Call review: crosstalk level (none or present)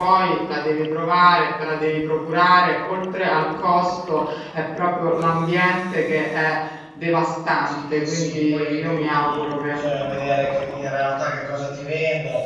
present